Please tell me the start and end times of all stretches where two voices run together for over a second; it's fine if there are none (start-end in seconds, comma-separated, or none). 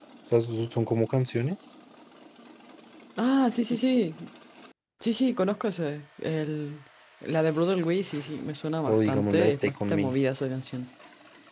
8.9-10.1